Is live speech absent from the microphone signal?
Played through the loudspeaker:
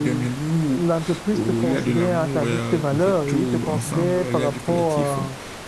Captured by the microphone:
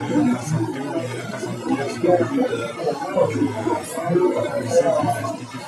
No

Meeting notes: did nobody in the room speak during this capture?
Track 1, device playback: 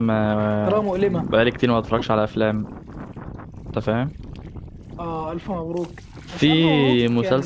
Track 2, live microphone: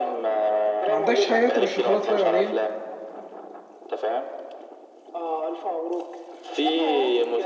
No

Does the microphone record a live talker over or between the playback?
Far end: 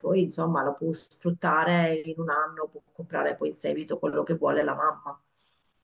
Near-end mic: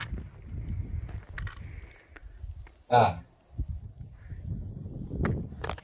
Yes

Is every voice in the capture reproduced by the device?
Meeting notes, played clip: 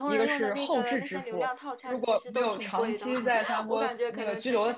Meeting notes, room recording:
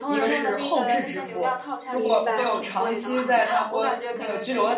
No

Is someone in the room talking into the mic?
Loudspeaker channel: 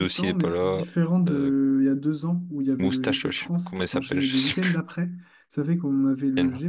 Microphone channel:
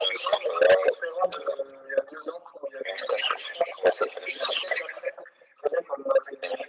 No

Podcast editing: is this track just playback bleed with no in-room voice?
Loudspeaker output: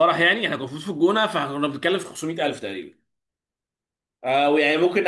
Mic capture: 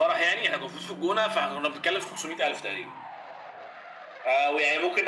Yes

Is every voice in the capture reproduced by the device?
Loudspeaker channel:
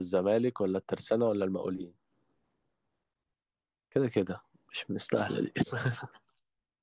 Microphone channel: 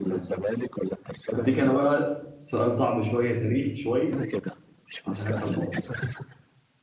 No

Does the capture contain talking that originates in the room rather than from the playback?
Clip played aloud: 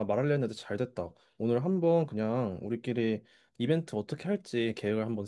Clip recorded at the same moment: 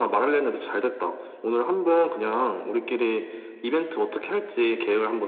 No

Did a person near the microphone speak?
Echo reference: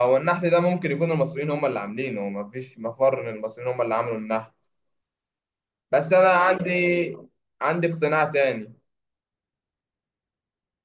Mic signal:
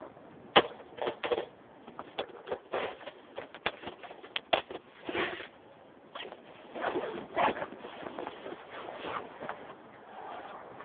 No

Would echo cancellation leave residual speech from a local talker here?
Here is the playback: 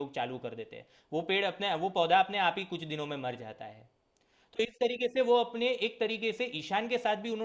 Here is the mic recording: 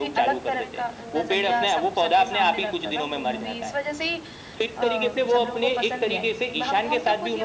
Yes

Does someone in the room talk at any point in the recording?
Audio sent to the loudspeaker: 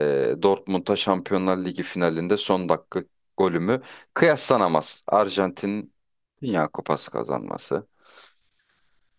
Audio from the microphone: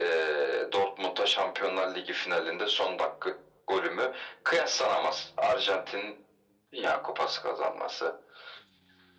No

